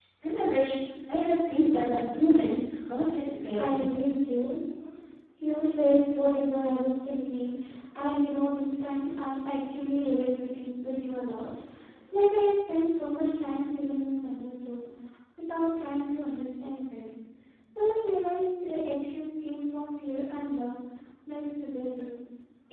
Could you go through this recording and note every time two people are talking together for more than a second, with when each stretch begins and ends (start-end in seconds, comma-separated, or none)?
none